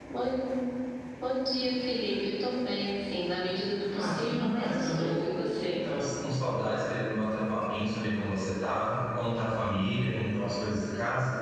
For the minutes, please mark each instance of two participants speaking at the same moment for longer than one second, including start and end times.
3.9-5.2

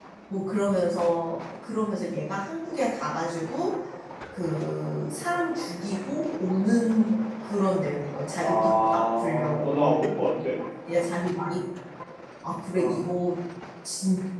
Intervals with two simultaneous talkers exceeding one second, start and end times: 8.4-10.1

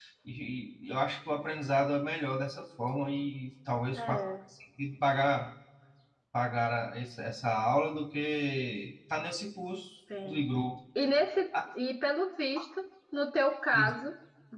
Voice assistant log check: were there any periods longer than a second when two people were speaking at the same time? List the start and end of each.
none

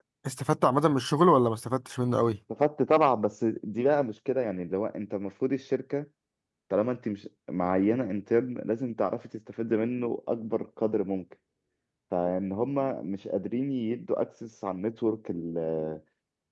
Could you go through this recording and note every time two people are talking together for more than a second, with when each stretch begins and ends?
none

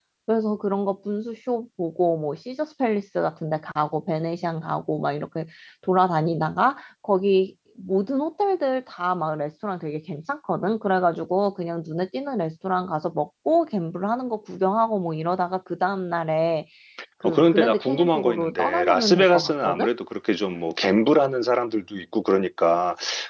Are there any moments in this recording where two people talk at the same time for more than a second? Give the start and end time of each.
17.2-19.9

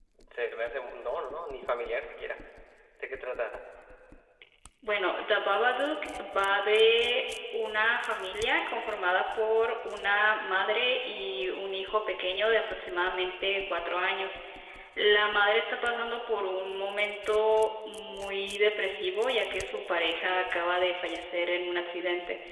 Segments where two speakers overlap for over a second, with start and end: none

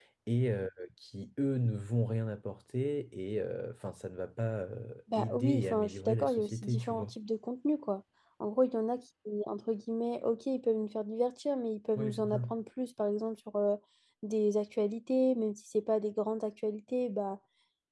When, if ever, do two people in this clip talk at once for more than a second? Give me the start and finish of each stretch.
5.2-7.1

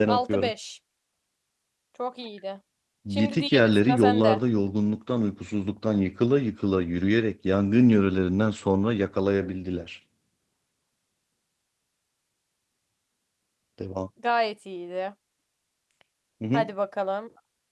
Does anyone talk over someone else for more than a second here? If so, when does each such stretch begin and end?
3.1-4.4

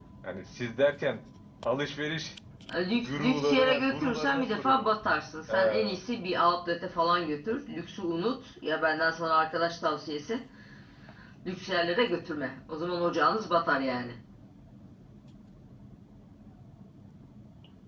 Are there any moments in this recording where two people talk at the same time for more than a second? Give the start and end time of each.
2.8-4.9

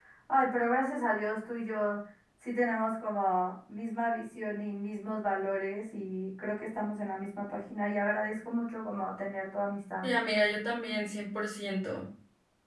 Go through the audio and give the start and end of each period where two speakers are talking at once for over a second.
none

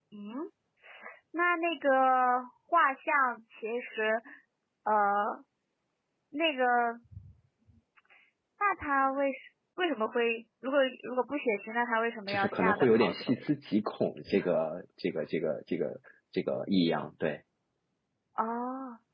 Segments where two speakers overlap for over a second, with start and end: 12.3-13.5

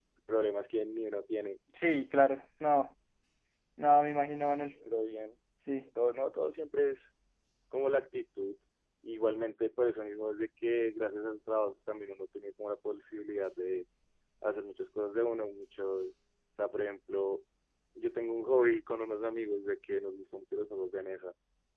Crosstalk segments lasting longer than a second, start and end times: none

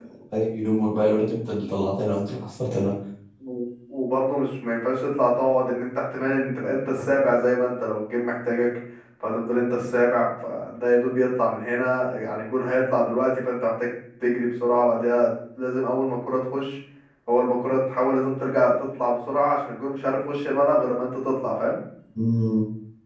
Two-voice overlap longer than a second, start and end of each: none

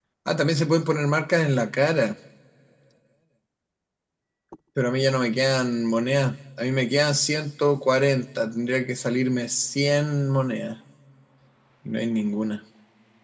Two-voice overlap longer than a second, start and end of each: none

